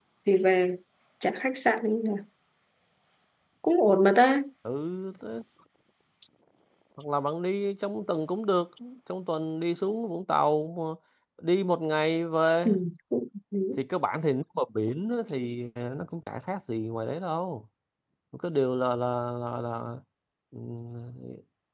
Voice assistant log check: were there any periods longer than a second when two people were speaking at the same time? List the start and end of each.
none

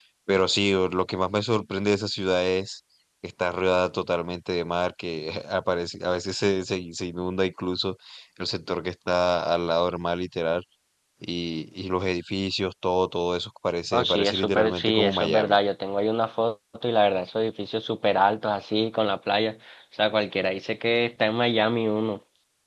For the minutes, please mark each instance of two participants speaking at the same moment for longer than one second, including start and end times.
13.9-15.6

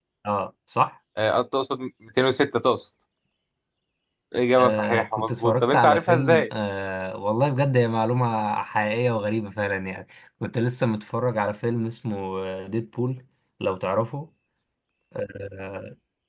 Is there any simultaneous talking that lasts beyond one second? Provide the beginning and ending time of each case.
4.6-6.5

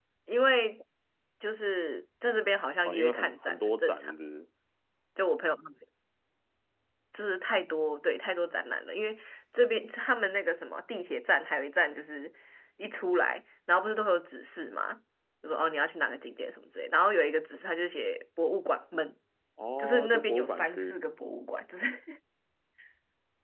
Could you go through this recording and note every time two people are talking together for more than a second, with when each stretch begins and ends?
2.9-4.1, 19.8-21.0

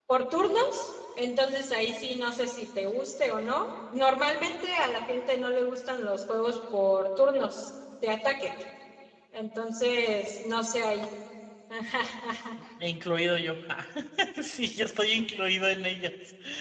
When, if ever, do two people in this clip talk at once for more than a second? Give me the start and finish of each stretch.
none

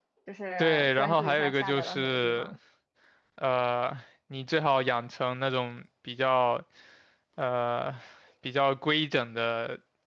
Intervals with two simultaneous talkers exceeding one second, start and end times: 0.6-2.5

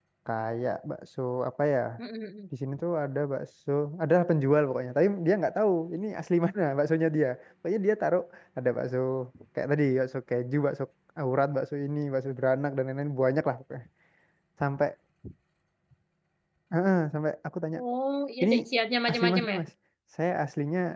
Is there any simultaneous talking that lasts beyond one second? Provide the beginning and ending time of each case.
none

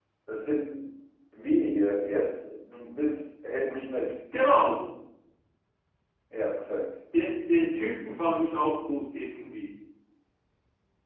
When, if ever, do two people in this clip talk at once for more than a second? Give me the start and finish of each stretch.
none

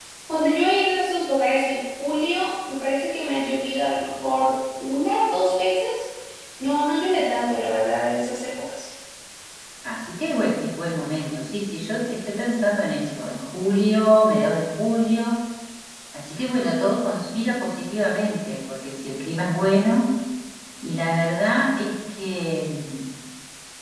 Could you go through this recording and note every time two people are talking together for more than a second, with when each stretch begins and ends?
none

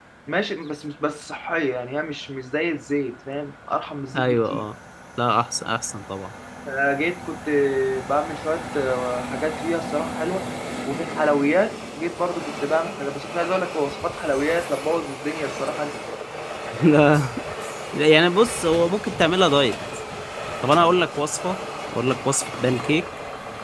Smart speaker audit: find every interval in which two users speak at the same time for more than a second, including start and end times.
none

